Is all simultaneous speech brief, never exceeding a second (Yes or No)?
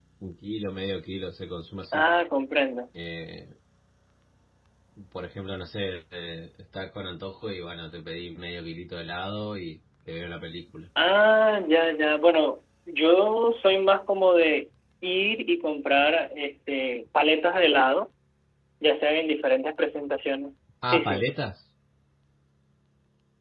Yes